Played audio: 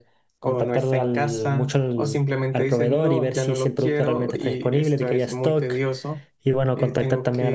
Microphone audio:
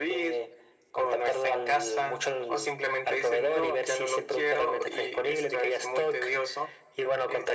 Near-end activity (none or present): none